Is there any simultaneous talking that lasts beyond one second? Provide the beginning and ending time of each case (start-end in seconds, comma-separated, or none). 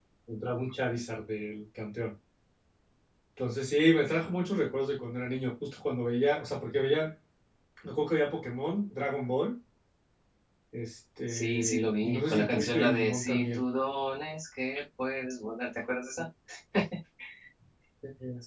11.3-13.6